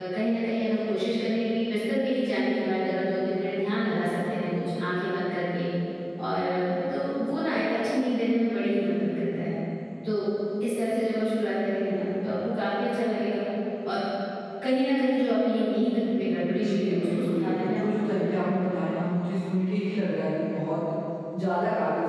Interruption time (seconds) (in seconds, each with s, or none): 16.5 s